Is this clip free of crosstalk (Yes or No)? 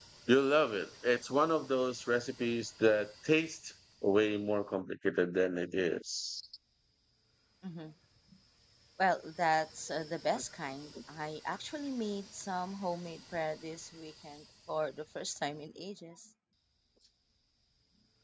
Yes